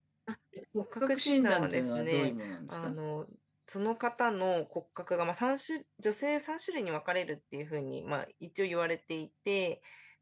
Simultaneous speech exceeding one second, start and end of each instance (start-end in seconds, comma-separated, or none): 0.8-3.0